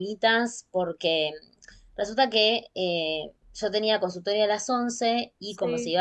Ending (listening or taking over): listening